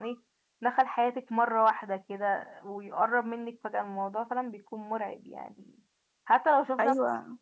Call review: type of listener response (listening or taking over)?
listening